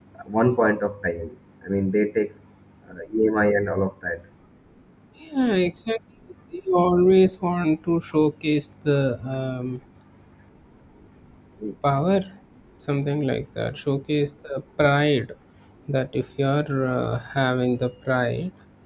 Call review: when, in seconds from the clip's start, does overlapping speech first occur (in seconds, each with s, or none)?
none